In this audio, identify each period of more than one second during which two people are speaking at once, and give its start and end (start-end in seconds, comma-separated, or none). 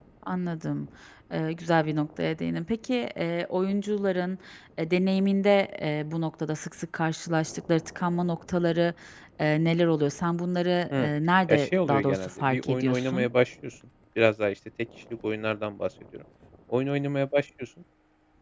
11.5-13.3